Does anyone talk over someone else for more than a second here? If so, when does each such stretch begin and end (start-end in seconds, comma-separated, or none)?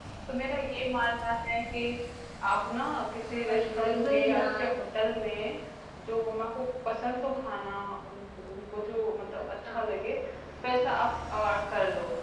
3.5-4.7